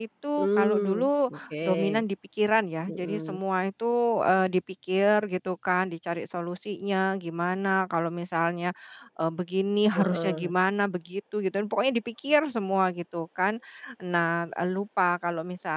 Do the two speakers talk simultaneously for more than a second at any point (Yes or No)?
Yes